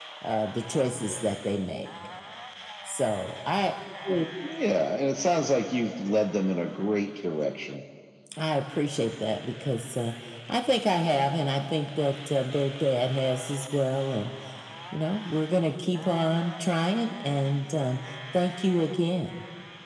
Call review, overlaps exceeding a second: none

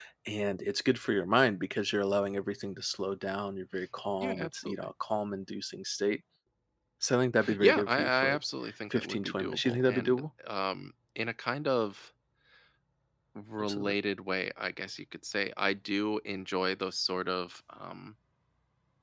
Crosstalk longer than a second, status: present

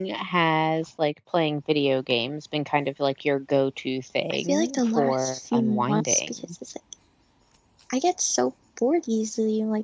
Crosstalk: present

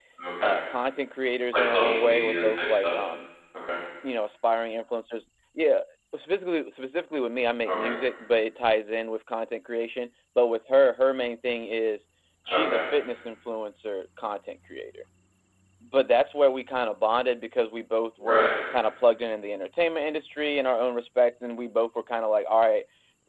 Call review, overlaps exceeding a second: present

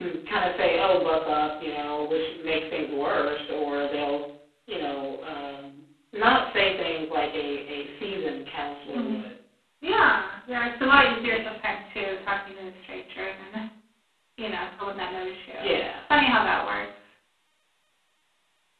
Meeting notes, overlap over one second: none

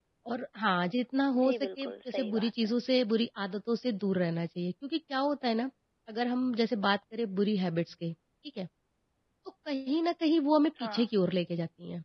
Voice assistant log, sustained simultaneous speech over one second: present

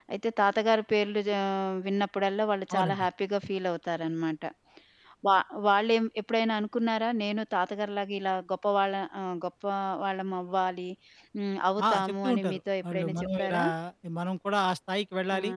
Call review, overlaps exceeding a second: present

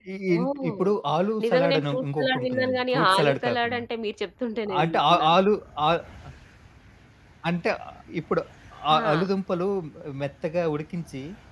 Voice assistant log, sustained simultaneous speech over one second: present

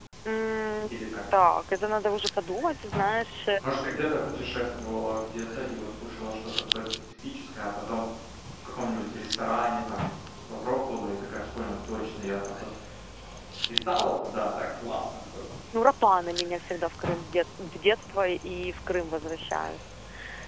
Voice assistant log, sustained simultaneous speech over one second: none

